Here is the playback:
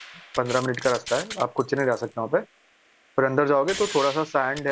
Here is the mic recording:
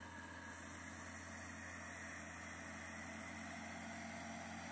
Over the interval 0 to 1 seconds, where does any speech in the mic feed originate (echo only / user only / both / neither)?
neither